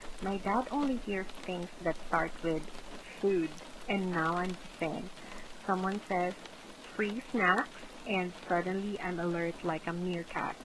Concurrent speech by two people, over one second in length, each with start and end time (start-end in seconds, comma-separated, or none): none